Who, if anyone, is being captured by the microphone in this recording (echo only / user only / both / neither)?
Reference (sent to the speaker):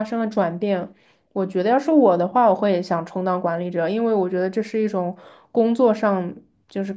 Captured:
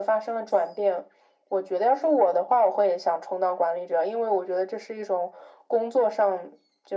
echo only